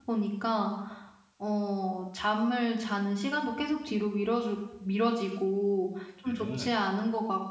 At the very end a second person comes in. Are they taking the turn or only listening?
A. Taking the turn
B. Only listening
B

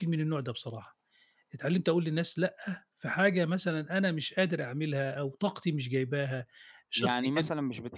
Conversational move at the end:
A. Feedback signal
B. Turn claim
B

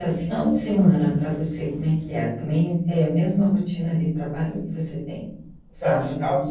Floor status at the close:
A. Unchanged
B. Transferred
B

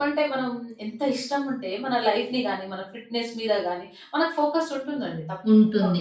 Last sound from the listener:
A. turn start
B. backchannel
A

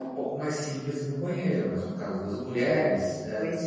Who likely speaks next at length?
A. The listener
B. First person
B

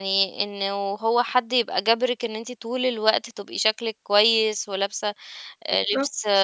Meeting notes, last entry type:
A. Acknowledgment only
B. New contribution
A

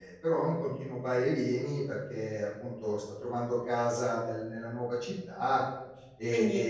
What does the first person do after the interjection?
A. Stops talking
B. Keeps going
B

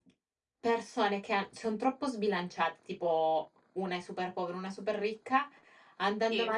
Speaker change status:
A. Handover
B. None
B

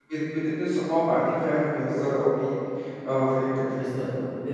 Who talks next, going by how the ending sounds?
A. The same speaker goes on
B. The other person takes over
B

